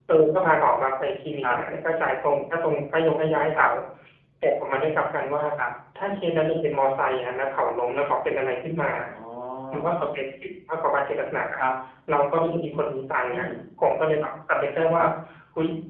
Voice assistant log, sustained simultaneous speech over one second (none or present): none